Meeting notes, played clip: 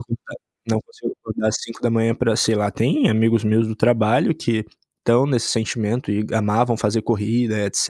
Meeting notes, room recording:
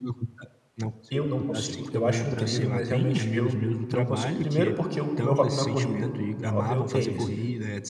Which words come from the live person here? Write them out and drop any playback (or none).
Eu não consigo. Eu acho incrível, mas realmente eu não consigo. Primeiro, porque o meu hobby não é corrida. Meu hobby é o tênis.